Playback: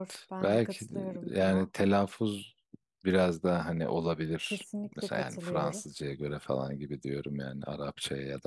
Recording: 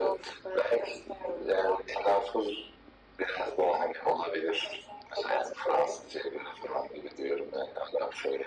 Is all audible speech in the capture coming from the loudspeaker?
Yes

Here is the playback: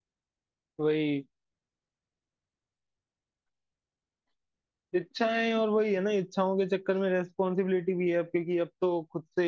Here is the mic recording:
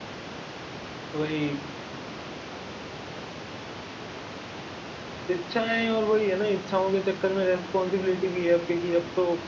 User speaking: No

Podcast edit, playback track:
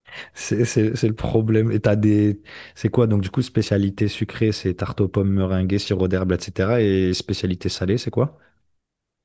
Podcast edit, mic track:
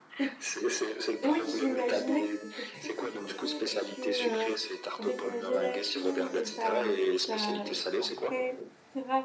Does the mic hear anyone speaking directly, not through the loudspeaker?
Yes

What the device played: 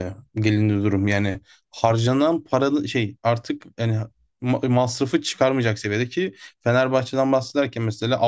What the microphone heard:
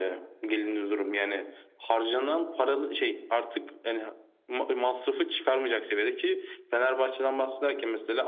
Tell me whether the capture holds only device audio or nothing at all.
Yes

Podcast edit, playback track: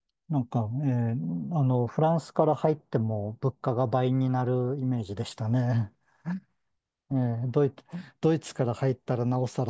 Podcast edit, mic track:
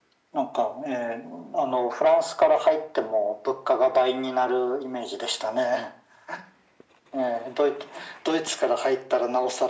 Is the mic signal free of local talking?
Yes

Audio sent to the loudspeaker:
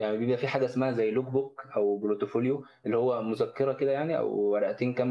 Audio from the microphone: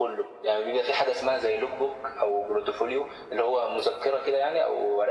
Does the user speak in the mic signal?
No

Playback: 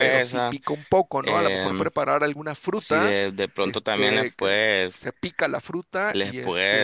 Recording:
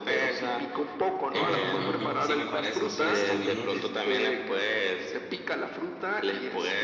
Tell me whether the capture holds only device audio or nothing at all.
No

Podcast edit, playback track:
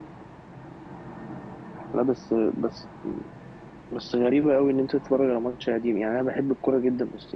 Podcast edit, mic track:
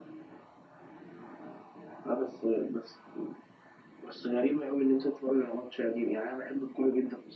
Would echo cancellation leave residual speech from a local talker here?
No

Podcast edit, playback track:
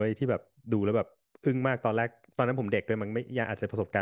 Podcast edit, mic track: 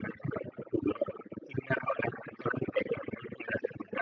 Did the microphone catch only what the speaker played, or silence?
Yes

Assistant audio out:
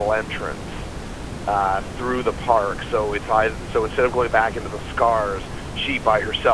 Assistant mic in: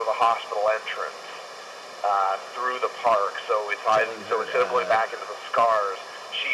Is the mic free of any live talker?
No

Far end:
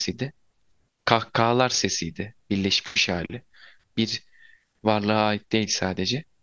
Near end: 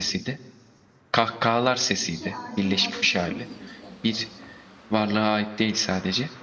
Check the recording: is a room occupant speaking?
Yes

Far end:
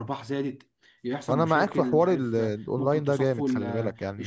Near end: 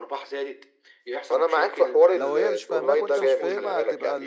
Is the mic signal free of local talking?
No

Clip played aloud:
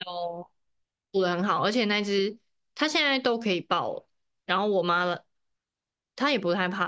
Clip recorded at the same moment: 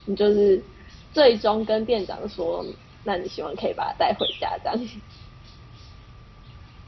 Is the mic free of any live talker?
No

